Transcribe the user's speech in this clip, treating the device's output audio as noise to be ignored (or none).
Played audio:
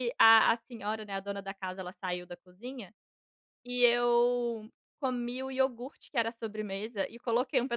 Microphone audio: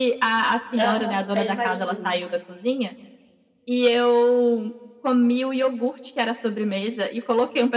Aham, é imagina.